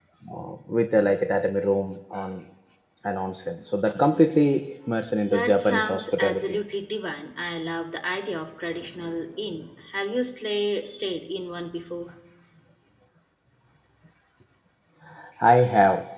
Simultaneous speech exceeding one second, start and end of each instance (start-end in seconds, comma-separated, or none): 5.3-6.6